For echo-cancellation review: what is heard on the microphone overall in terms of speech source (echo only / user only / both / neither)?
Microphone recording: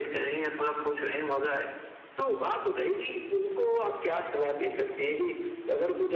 echo only